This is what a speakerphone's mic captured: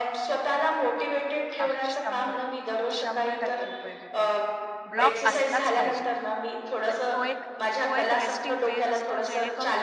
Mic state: both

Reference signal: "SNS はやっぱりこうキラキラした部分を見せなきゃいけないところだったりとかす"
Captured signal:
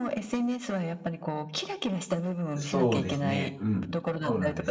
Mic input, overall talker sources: both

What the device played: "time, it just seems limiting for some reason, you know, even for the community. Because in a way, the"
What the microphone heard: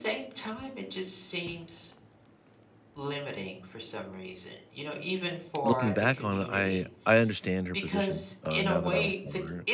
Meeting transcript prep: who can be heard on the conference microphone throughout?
both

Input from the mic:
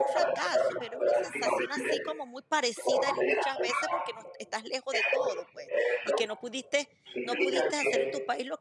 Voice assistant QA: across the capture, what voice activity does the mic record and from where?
both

